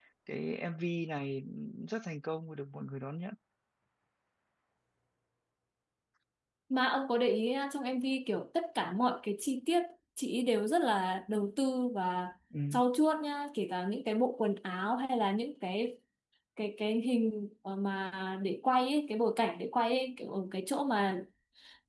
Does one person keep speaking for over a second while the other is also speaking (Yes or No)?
No